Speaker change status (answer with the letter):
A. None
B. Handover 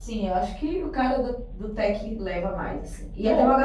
A